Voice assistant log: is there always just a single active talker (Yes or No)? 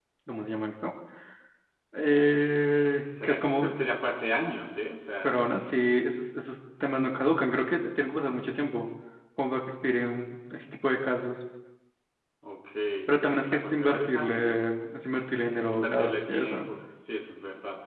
No